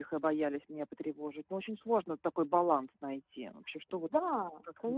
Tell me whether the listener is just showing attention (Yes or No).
No